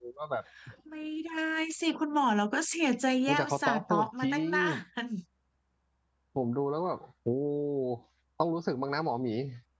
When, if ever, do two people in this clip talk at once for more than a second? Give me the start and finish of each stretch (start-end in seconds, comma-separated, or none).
3.3-4.5